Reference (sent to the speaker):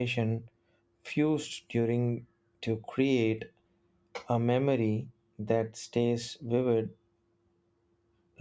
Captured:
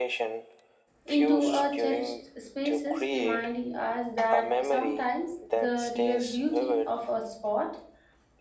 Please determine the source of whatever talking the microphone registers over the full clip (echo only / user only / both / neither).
both